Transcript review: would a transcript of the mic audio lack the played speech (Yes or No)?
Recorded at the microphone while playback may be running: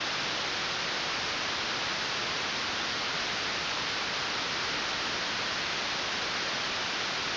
Yes